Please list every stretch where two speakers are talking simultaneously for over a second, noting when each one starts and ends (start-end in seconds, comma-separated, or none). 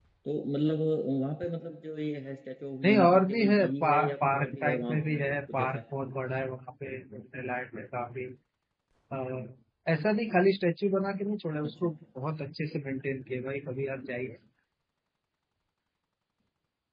2.8-5.8